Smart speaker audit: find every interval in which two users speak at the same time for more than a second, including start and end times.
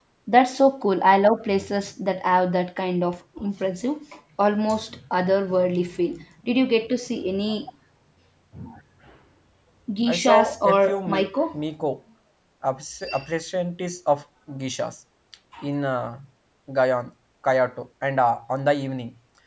10.1-11.3

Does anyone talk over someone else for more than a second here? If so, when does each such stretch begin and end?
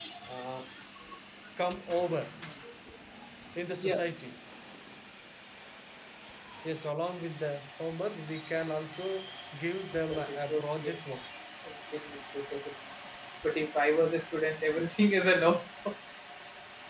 10.1-11.4

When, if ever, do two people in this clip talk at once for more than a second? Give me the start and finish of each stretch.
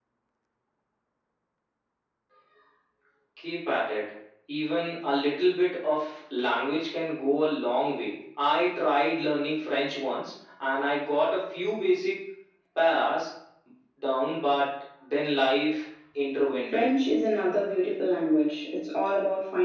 none

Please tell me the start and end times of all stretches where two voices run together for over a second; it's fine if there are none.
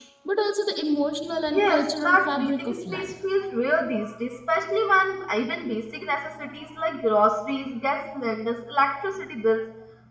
1.5-3.1

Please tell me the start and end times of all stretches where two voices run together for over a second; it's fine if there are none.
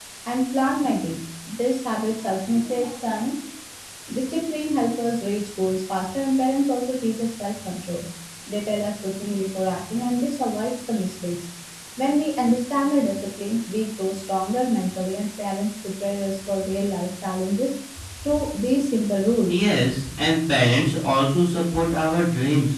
none

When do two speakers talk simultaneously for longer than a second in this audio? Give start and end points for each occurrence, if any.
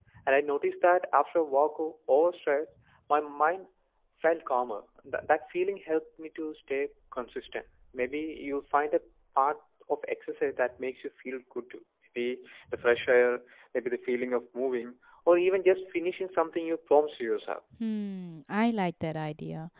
none

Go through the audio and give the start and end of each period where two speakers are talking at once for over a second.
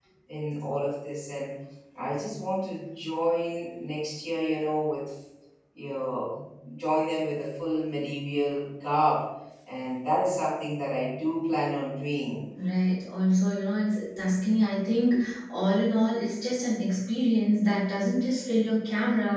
none

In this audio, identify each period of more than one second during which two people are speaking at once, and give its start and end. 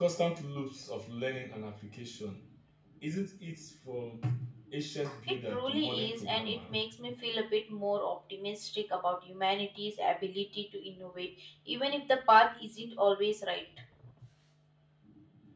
5.5-6.8

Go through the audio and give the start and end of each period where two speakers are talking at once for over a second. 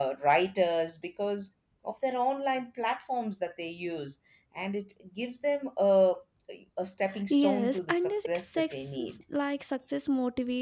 7.3-9.2

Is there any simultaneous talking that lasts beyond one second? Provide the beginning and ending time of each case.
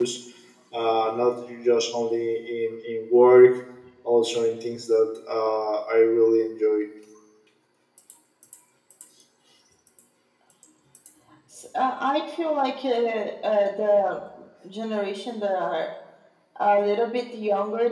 none

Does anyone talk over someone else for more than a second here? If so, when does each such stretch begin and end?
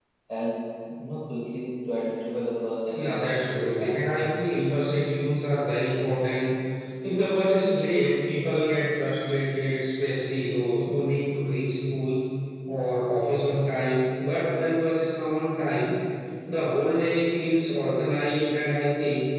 2.9-4.2

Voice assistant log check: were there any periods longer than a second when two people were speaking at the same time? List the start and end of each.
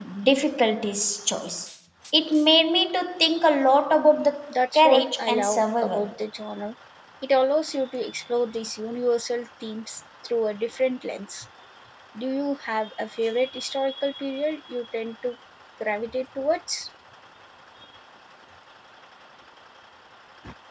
4.7-6.1

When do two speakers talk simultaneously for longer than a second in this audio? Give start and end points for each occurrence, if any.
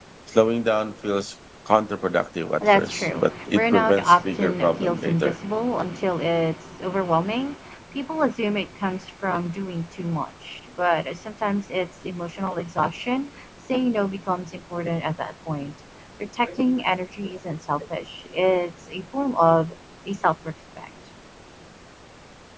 2.6-5.3

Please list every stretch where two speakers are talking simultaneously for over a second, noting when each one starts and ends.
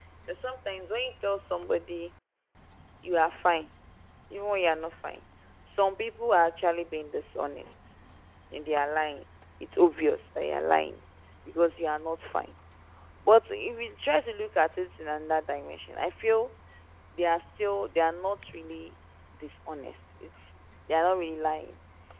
none

